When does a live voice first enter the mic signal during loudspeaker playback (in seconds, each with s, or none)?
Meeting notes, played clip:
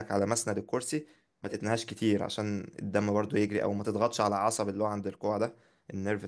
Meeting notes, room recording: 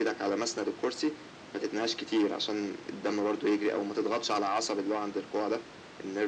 none